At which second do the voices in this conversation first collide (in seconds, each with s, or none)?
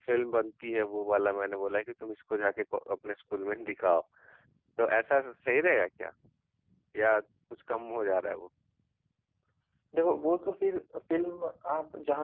none